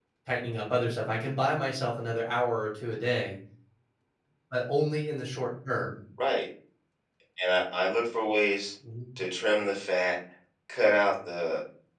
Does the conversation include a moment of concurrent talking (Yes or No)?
No